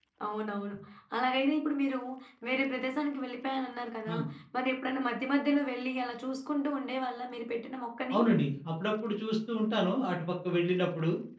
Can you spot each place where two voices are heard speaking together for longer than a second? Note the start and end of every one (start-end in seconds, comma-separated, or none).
none